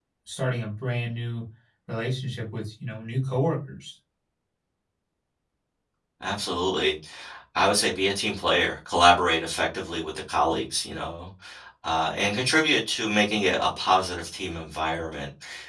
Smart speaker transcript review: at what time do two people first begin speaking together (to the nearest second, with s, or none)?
none